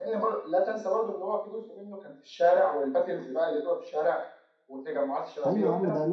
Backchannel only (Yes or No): No